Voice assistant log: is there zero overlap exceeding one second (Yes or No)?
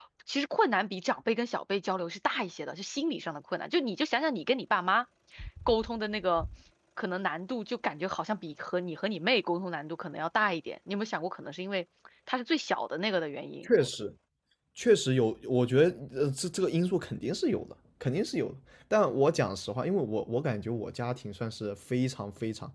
Yes